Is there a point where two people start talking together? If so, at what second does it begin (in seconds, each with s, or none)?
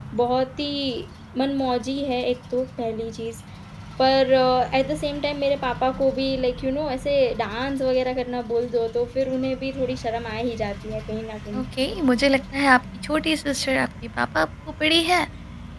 none